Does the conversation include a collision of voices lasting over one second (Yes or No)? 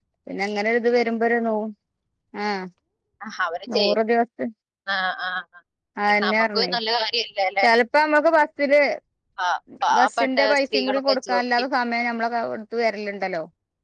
Yes